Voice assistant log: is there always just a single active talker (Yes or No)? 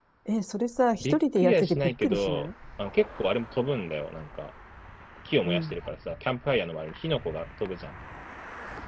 No